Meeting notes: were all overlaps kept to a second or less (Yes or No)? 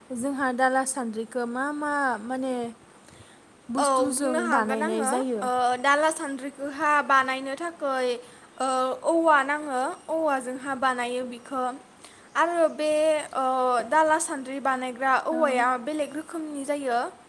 No